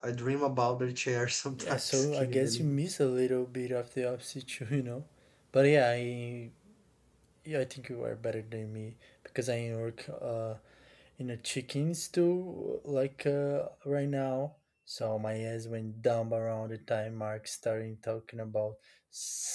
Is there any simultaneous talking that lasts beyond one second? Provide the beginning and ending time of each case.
1.6-2.8

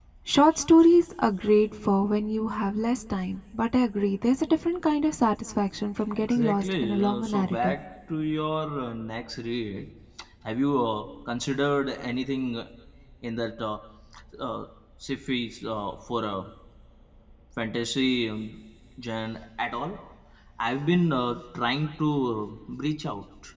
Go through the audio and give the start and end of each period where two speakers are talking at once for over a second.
6.2-7.8

